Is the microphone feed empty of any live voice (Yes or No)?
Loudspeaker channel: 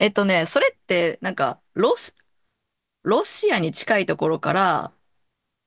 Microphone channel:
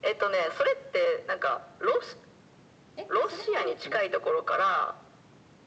No